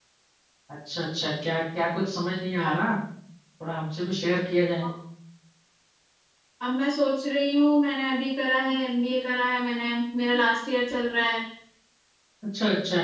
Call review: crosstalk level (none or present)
none